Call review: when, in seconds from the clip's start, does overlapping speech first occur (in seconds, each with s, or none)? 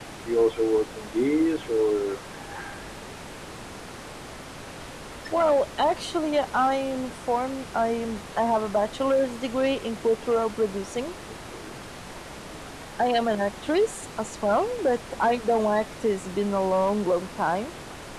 none